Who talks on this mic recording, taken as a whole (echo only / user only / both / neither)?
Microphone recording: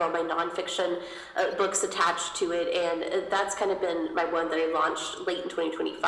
echo only